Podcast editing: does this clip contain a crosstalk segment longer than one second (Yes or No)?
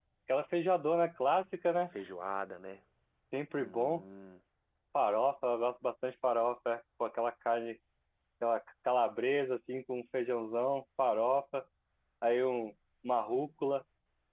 No